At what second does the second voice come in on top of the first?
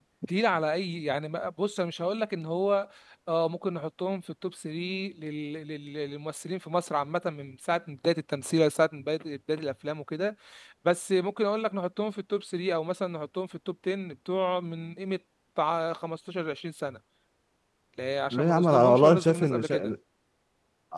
18.3 s

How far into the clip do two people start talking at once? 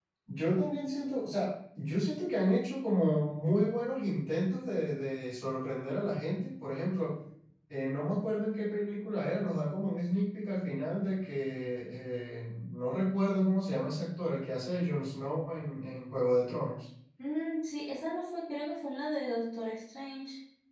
none

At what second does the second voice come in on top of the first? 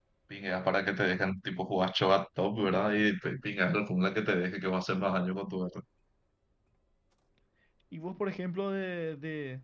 none

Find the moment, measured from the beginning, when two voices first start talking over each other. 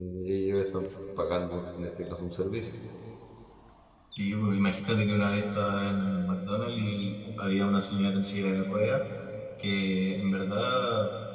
none

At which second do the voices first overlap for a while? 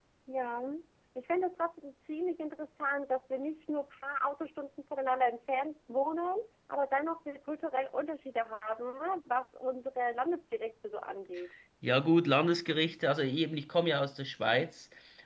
none

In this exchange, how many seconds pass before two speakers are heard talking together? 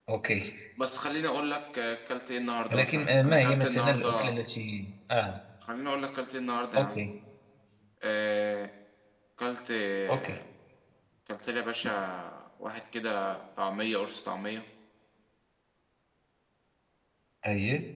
2.7 s

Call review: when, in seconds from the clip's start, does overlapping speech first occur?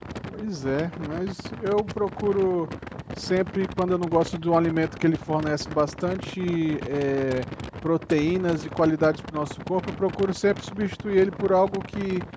none

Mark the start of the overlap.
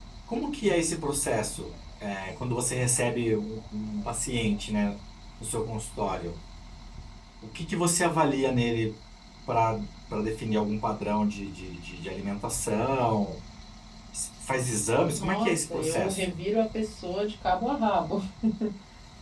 15.2 s

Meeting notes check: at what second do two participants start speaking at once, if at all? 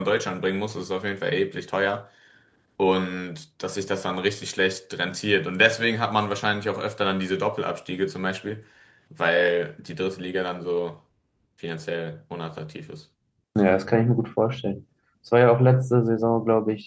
none

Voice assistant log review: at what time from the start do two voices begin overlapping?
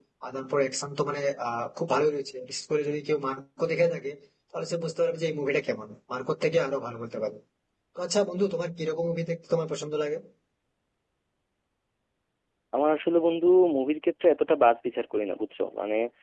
none

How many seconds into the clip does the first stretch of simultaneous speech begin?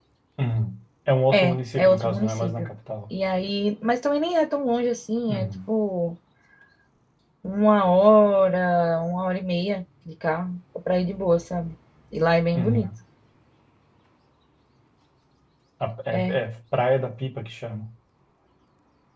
1.3 s

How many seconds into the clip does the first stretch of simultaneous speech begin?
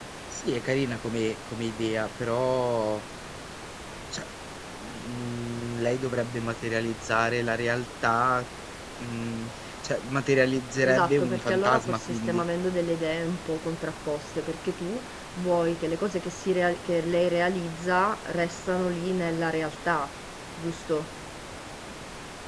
10.8 s

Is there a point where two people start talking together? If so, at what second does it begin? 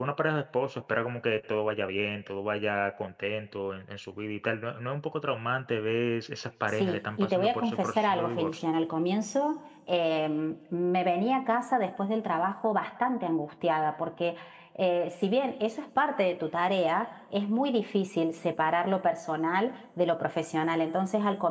6.8 s

